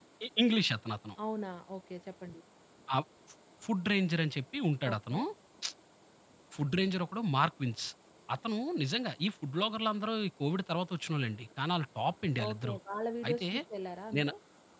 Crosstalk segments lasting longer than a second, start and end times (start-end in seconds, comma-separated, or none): none